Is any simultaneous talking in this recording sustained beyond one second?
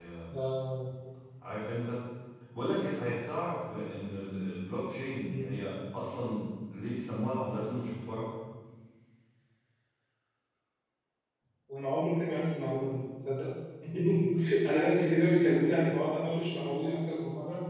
No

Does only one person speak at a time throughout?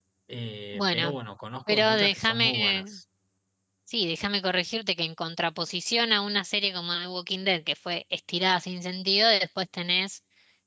No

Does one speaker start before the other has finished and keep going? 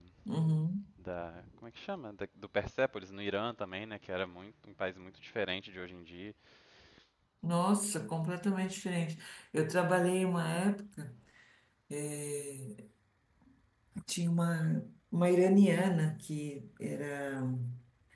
No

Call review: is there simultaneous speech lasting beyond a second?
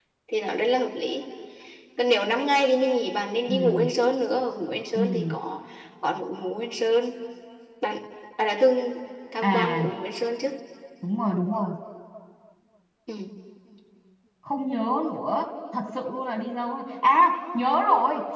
No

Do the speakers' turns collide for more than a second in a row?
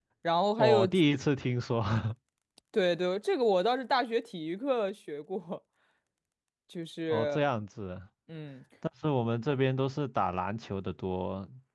No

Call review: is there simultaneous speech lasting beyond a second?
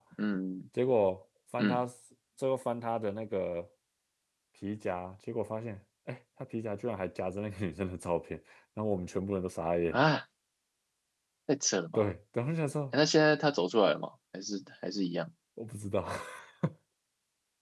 No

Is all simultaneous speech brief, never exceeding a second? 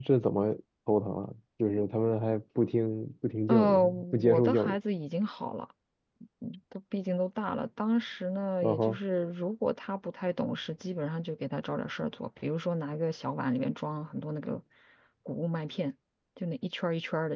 No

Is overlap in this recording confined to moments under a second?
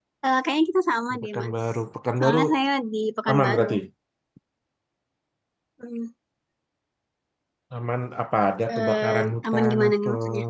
No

